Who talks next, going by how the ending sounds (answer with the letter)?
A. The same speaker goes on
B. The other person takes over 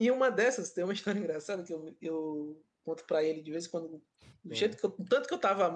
A